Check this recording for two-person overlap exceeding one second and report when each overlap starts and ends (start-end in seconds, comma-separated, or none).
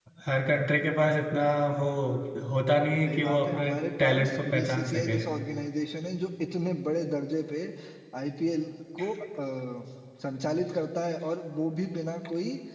3.0-5.2